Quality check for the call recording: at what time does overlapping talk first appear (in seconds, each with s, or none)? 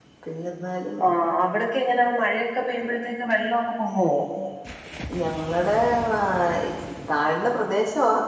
none